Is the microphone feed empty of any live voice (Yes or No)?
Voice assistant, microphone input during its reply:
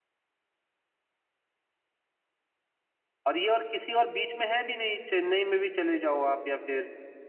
No